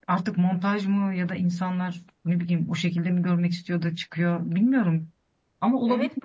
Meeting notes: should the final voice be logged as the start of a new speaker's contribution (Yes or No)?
Yes